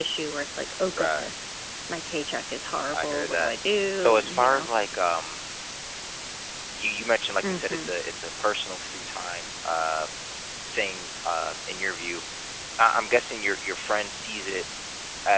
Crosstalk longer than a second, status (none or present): present